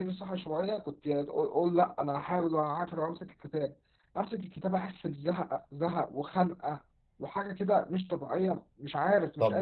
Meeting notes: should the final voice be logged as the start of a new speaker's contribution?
Yes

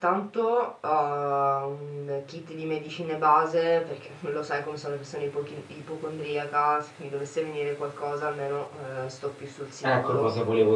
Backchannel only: No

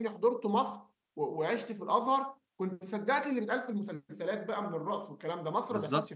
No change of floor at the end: No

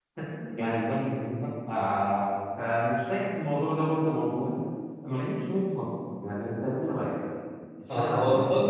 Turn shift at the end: Yes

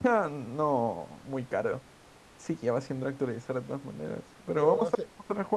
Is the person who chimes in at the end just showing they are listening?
Yes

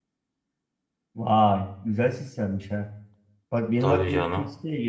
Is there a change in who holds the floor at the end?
No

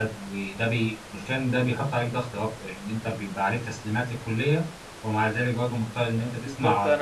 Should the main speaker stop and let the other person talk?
Yes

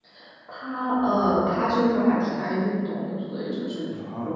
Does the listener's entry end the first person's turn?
No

